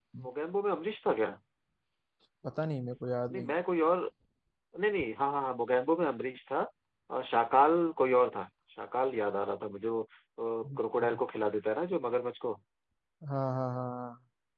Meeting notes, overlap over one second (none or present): none